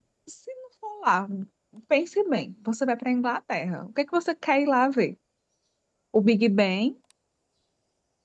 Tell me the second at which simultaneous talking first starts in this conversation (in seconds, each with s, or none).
none